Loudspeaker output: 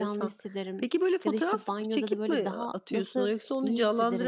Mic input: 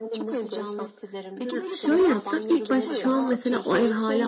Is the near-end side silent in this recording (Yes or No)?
No